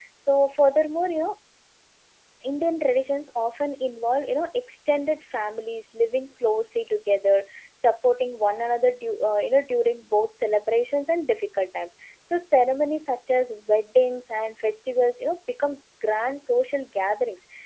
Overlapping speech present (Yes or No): No